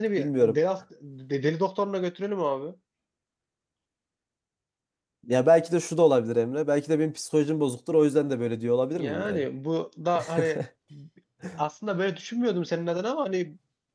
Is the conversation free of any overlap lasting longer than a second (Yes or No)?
Yes